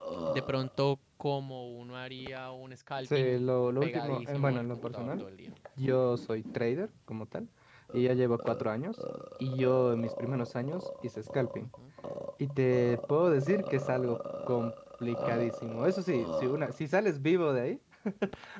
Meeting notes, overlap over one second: present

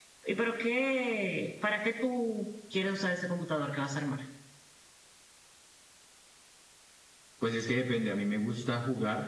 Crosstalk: none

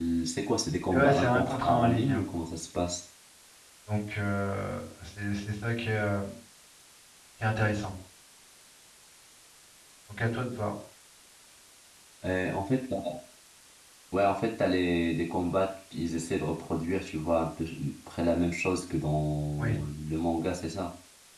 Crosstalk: present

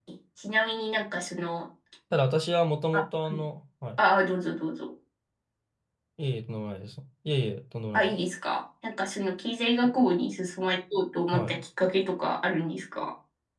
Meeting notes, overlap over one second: none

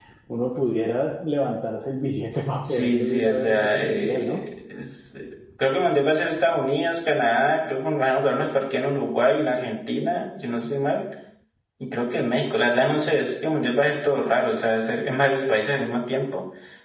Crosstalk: present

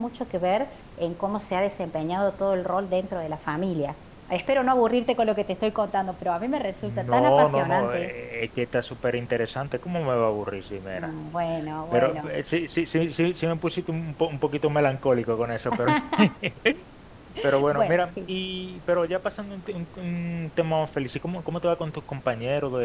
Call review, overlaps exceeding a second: present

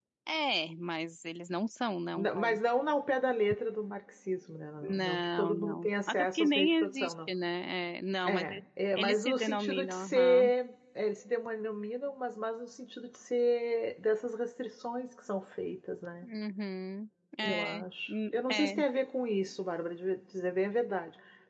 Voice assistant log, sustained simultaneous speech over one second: present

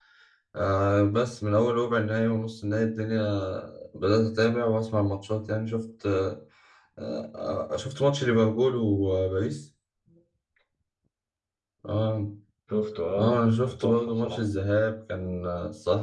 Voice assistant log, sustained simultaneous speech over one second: present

